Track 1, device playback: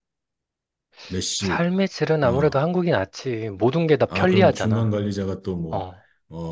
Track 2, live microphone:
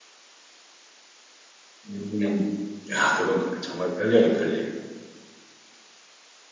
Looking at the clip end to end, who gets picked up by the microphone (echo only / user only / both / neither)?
user only